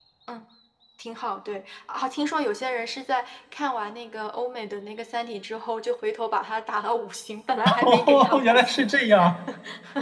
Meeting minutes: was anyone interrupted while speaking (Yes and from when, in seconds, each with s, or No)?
Yes, from 7.8 s